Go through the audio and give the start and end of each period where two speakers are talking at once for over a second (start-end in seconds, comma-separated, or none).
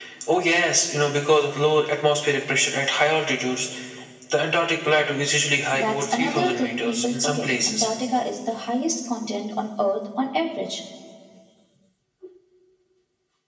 5.7-7.9